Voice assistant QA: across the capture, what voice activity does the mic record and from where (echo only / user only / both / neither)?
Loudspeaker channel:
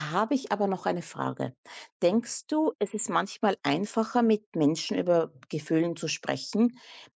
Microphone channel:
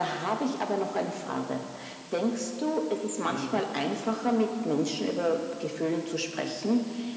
both